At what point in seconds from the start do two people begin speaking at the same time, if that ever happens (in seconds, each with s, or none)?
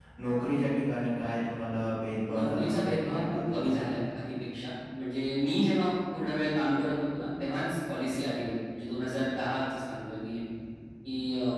2.2 s